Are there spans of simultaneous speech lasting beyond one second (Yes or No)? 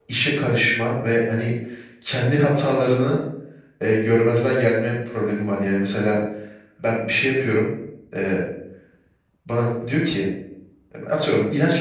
No